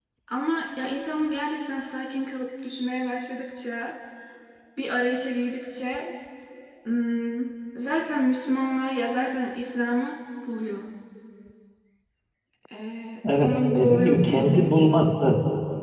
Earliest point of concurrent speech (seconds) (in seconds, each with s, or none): 13.4 s